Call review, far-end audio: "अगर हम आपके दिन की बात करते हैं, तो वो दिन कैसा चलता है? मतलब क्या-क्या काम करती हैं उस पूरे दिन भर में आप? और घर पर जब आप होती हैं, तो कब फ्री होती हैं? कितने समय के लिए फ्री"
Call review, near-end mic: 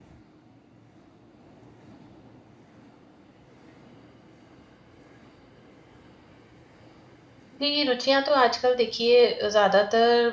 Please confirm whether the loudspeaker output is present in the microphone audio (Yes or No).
No